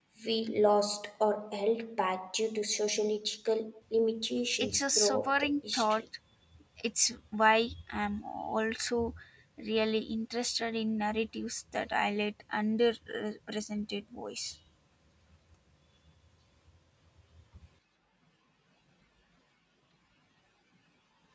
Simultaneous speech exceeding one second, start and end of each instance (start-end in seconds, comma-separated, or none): 4.6-6.0